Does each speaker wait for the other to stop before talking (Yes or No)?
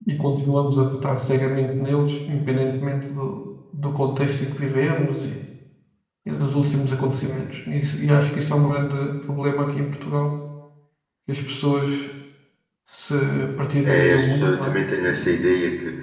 No